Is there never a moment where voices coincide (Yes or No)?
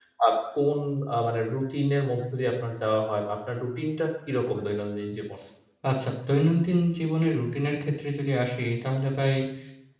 Yes